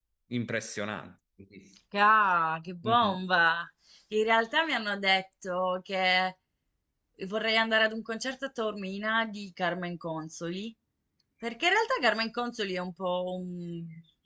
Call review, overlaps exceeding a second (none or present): none